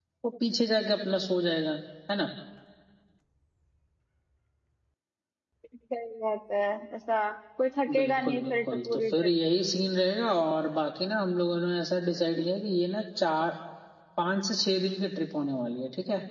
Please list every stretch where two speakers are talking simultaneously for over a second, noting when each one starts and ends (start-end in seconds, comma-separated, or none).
7.9-9.3